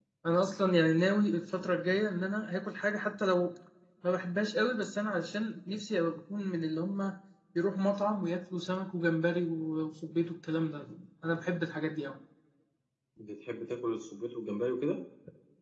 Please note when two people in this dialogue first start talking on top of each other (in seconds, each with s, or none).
none